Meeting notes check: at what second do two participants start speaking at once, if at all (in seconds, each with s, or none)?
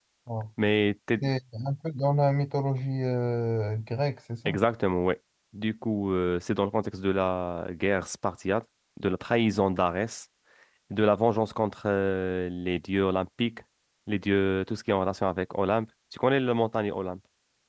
none